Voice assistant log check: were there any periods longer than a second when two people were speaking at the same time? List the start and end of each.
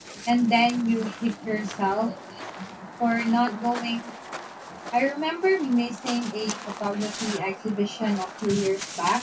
none

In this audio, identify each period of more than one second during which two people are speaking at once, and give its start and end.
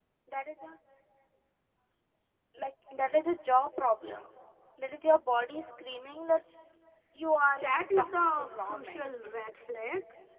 7.6-9.0

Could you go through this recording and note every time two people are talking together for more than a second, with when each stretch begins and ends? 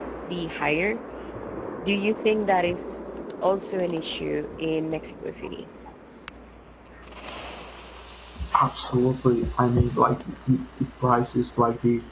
none

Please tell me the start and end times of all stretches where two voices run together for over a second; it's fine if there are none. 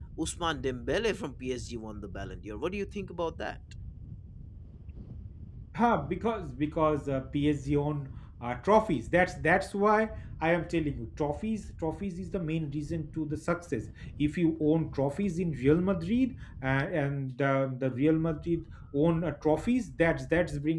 none

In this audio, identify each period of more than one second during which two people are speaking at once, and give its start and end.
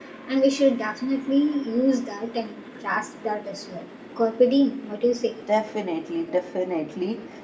none

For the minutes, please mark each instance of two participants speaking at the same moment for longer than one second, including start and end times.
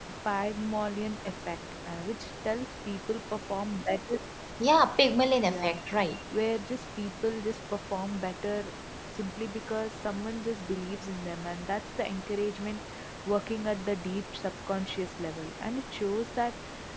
none

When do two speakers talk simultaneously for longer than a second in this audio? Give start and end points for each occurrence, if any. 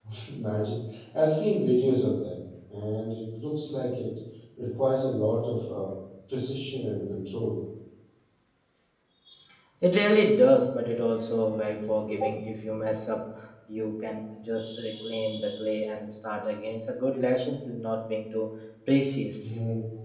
none

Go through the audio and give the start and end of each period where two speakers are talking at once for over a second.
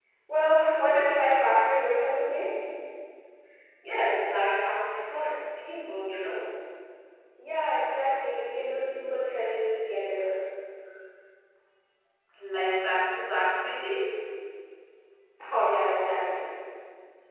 none

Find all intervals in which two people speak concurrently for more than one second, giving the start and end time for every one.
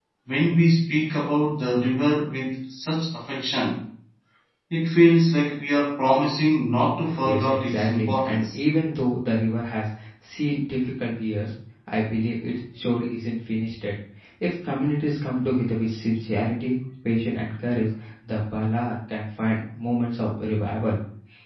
7.2-8.6

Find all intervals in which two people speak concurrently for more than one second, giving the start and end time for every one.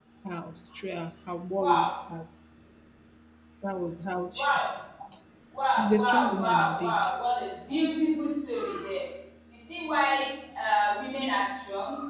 5.8-7.0

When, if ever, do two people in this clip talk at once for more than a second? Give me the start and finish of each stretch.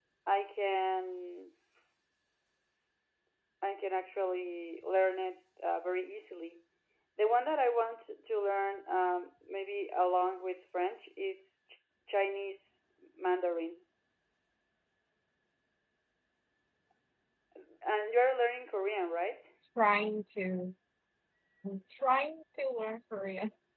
none

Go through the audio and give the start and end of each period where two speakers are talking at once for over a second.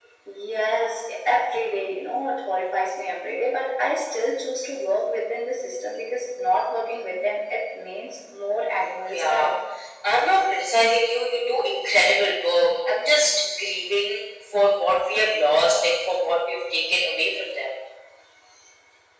none

